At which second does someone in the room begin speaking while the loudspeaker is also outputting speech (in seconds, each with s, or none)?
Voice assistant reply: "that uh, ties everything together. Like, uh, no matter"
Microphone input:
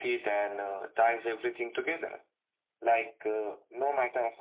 none